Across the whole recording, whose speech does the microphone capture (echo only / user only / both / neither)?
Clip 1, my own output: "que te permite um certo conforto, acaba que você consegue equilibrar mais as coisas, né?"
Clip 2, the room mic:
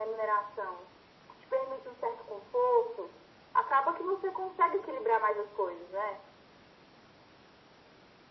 echo only